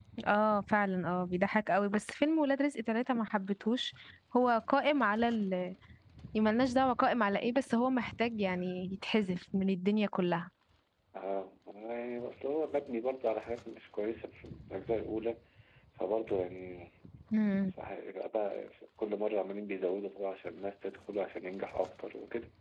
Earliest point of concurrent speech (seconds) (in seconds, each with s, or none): none